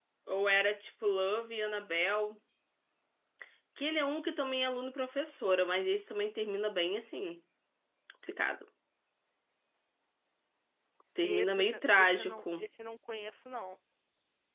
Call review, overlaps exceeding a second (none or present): present